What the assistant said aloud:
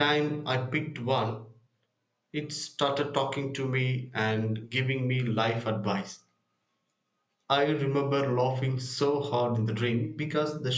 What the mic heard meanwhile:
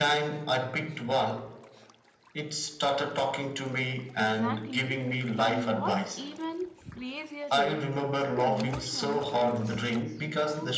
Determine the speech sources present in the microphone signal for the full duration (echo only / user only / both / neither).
both